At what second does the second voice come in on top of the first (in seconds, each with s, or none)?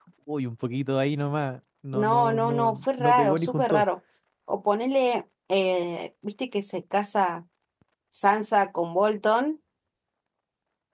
1.9 s